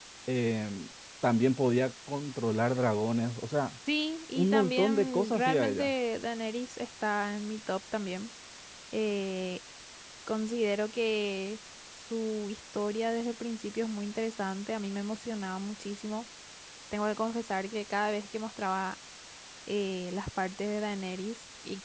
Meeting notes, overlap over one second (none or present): present